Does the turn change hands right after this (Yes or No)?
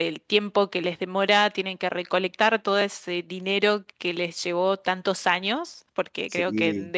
No